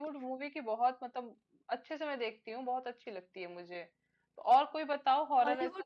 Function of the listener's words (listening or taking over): listening